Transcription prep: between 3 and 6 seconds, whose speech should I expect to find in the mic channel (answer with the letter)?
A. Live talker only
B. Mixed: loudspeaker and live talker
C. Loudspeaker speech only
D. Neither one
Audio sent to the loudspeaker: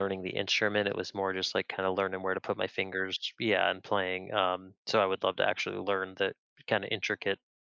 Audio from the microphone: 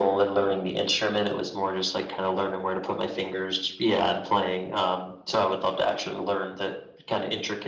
C